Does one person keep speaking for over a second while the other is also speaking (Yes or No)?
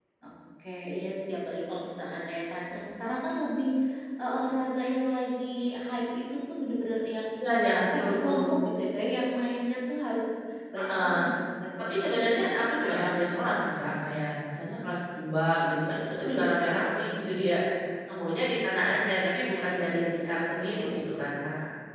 Yes